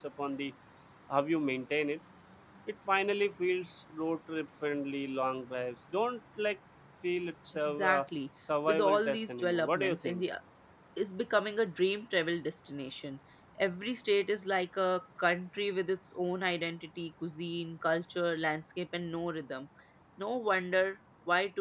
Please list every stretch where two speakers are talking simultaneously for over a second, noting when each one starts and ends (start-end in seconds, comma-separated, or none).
8.7-10.2